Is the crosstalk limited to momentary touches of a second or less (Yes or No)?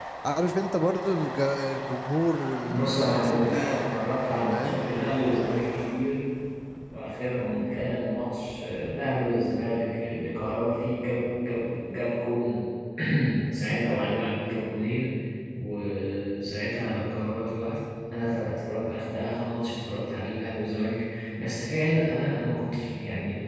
No